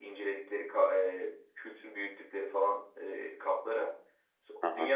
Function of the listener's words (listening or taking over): listening